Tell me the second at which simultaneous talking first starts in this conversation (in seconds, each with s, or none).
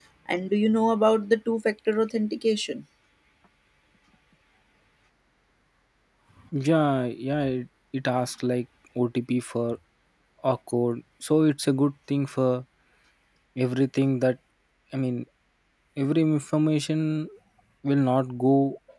none